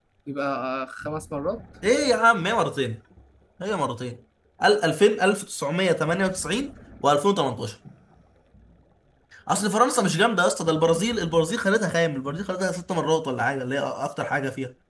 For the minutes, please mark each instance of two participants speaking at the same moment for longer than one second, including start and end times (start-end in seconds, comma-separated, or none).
none